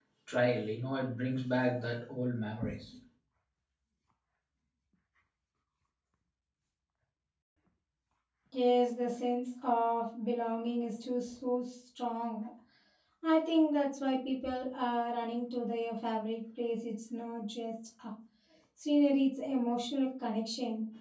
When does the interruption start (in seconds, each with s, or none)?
none